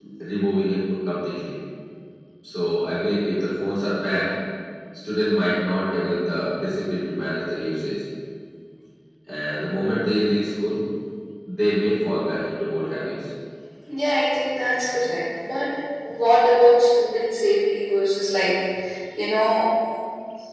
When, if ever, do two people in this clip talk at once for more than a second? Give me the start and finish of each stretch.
none

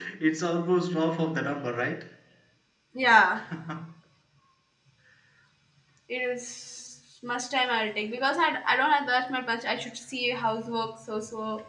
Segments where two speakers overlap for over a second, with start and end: none

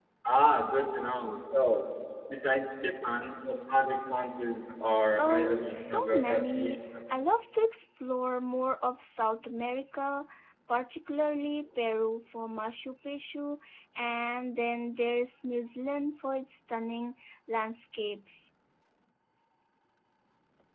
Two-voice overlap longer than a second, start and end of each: 5.2-6.8

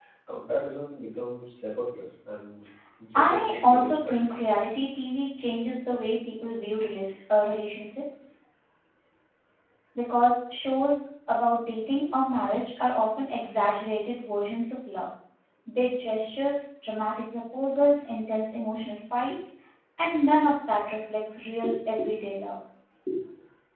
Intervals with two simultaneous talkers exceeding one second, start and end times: 3.1-4.4

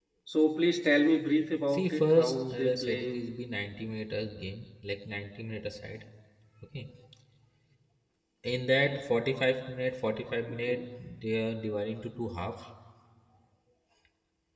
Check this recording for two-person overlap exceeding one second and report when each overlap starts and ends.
1.7-3.2

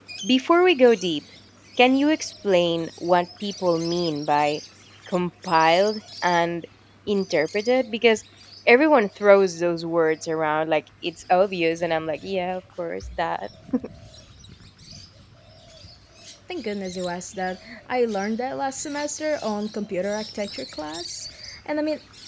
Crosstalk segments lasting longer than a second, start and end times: none

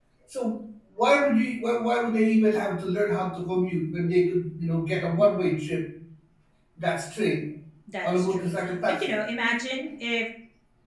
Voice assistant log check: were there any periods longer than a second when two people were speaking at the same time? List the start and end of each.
none

